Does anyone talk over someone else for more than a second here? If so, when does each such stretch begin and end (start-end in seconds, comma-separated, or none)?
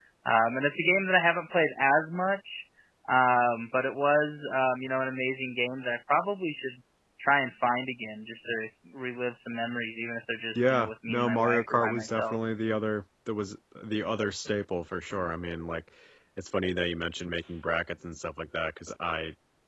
10.6-12.4